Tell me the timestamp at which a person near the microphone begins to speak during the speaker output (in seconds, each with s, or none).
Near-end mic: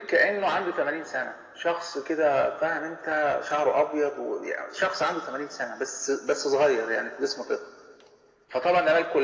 none